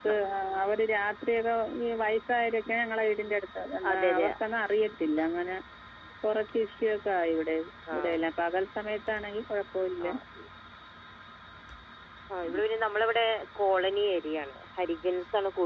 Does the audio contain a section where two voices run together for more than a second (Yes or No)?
No